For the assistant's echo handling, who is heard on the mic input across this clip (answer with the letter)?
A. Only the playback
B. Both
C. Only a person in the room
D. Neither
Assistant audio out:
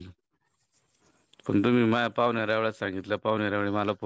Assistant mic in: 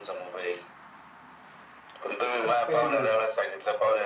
B